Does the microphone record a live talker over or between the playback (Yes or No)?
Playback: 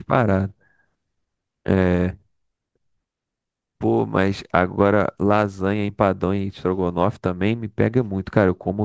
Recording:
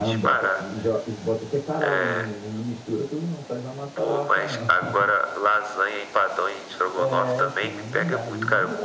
Yes